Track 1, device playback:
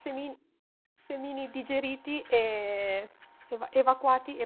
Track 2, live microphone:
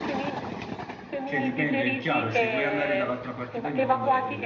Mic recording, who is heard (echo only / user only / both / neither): both